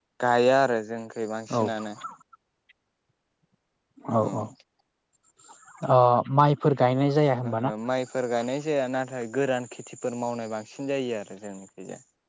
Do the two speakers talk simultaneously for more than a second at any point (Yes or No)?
No